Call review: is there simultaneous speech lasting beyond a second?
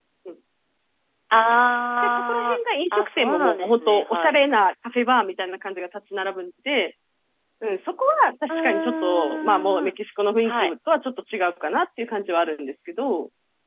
Yes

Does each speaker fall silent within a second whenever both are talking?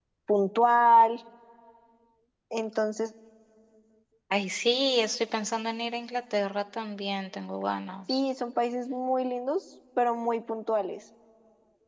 Yes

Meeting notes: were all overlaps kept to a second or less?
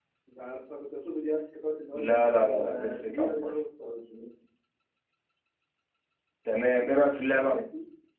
No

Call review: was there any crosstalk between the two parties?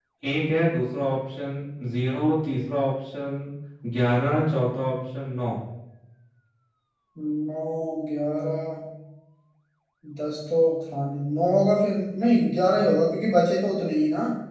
No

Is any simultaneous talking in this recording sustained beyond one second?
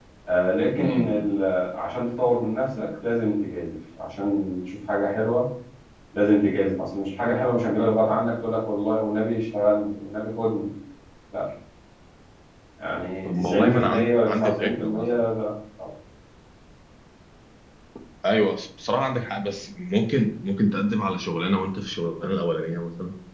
Yes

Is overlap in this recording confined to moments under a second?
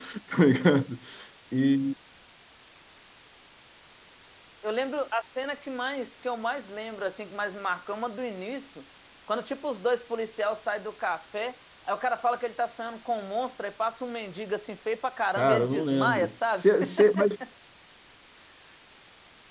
No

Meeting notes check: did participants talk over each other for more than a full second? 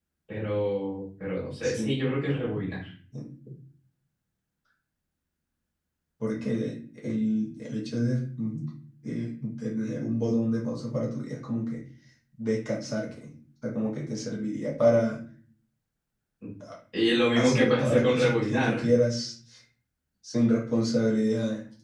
Yes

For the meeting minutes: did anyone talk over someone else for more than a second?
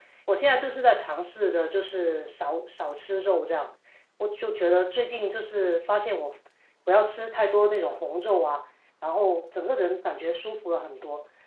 No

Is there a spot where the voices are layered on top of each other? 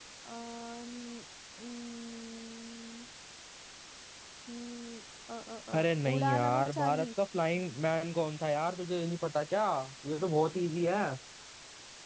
Yes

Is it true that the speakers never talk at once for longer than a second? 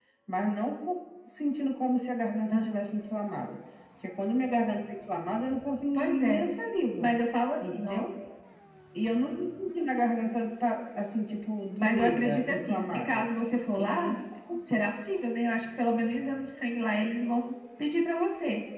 No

